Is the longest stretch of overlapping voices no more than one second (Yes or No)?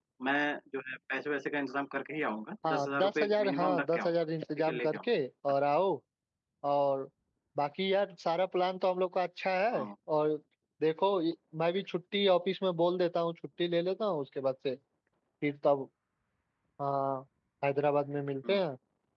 No